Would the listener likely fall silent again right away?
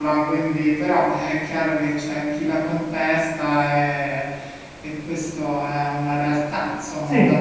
No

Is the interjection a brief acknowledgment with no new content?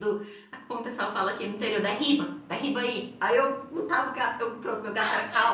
No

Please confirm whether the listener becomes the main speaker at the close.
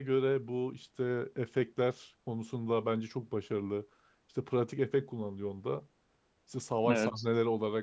No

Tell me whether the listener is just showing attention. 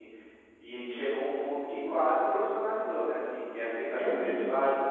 Yes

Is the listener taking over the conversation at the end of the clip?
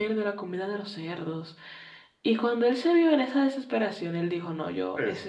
No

